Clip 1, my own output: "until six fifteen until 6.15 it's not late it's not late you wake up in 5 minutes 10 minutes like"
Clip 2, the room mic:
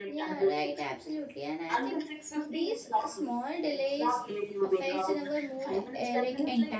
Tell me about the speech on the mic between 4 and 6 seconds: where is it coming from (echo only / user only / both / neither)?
both